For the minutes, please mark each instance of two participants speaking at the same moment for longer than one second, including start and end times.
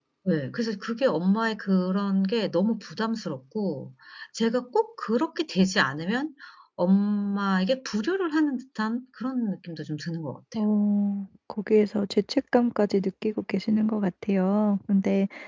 none

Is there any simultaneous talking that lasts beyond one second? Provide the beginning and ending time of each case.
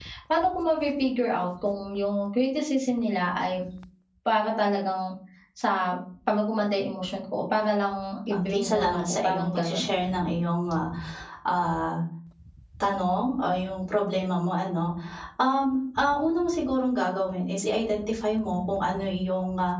8.3-9.9

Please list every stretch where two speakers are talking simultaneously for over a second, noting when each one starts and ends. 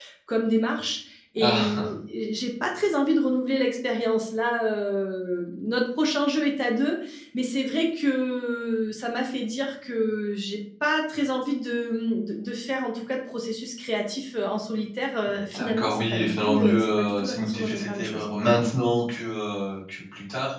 15.5-18.2

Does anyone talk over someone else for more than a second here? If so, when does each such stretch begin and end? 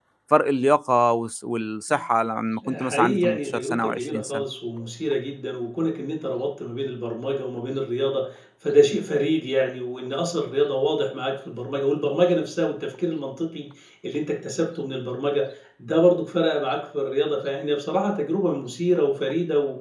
2.7-4.4

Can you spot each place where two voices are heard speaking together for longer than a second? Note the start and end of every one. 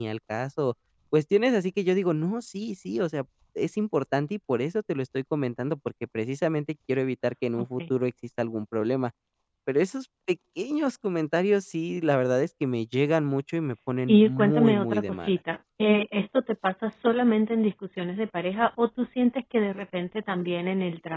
14.1-15.4

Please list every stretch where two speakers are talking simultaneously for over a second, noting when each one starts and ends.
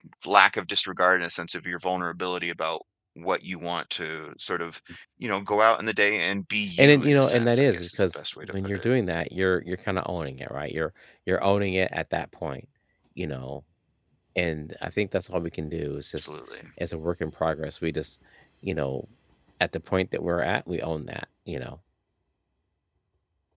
6.8-8.9

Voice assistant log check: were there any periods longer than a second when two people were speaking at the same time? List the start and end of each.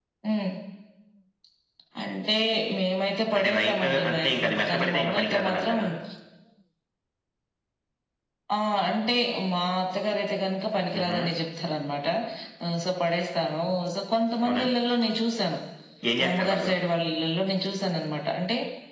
3.4-5.8

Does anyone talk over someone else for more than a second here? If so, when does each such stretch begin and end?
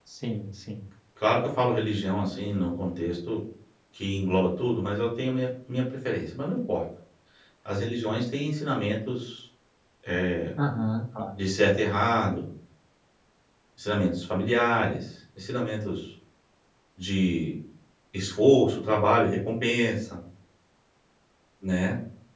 none

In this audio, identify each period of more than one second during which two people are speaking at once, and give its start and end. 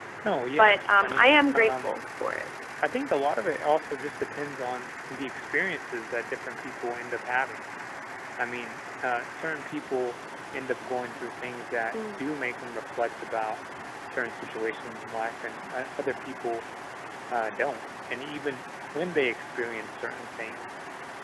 0.6-2.0

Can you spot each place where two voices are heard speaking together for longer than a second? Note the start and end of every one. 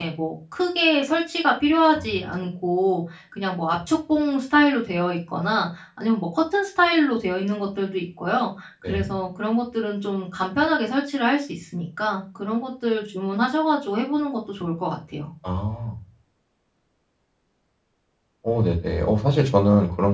none

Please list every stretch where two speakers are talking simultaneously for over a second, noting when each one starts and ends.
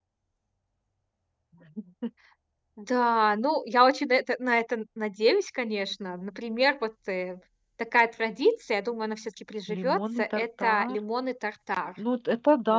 9.8-11.0

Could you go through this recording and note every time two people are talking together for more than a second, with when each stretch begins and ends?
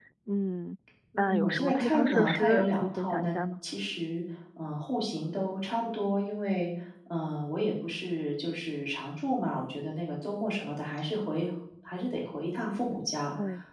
1.2-3.3

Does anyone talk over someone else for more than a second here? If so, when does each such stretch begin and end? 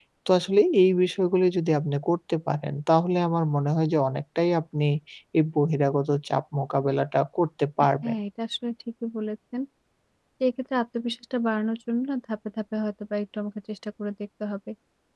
none

